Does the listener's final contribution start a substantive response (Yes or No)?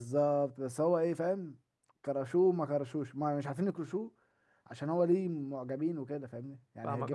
Yes